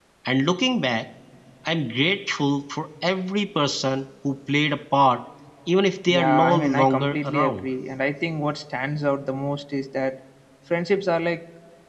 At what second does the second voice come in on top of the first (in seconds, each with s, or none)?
6.1 s